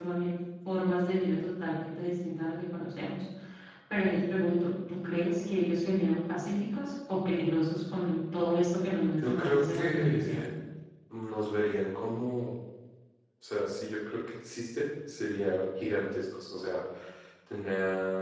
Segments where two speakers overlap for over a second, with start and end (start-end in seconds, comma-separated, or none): 9.2-10.5